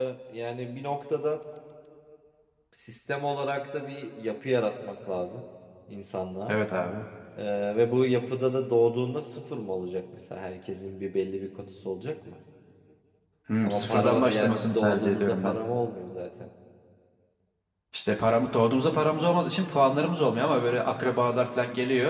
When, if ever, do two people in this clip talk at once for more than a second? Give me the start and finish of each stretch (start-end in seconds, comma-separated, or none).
13.6-15.6